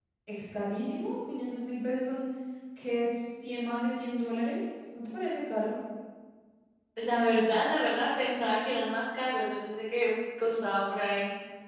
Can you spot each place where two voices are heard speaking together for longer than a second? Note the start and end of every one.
none

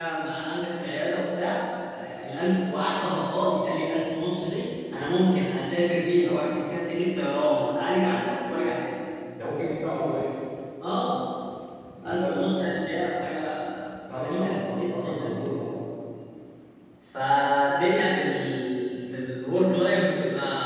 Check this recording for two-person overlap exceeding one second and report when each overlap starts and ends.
14.1-15.7

